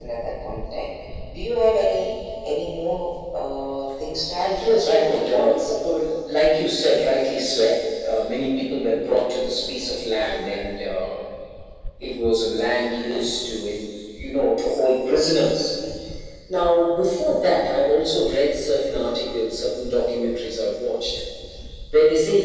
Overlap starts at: 4.4 s

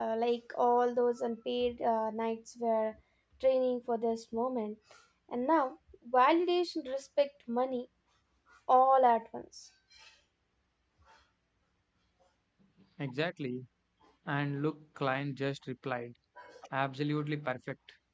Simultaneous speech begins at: none

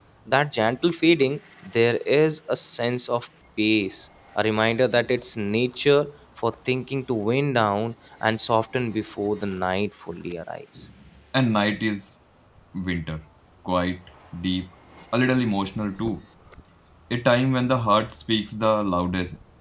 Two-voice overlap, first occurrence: none

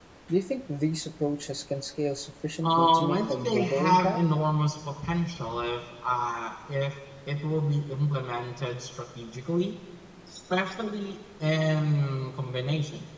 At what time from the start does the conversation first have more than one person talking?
2.6 s

